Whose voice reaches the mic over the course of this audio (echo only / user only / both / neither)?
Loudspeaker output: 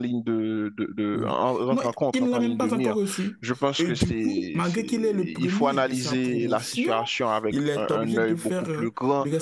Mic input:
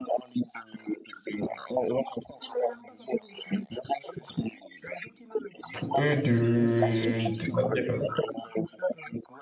both